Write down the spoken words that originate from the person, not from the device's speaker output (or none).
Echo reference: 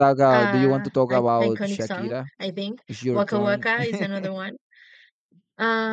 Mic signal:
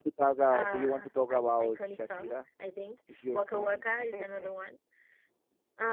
none